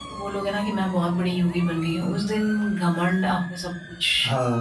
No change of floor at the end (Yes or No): No